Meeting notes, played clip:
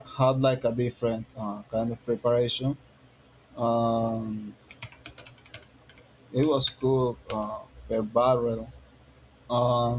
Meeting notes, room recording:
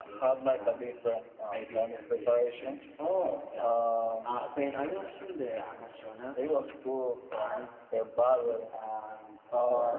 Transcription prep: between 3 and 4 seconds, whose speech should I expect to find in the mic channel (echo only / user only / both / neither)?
both